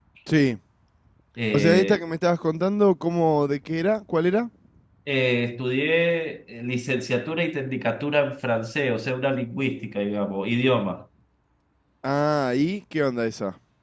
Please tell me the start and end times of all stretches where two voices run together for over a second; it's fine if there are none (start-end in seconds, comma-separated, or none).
none